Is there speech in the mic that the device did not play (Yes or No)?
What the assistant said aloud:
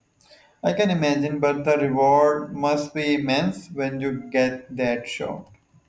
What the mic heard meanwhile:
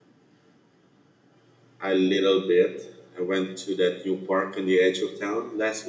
Yes